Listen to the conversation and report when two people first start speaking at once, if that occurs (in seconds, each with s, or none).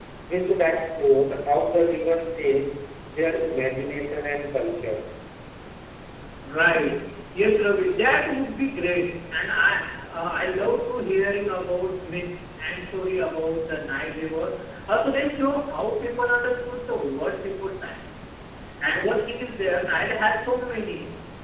none